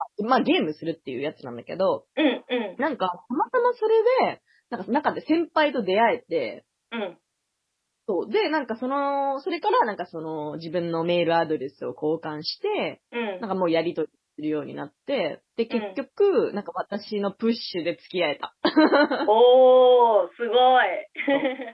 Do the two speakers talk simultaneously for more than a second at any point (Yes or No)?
No